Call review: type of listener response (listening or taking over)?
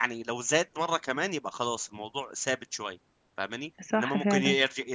listening